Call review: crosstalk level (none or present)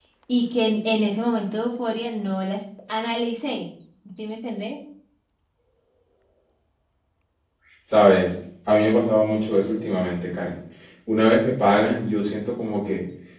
none